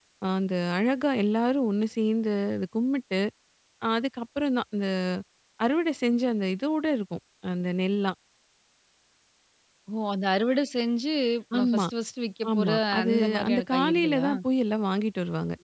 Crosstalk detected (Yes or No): Yes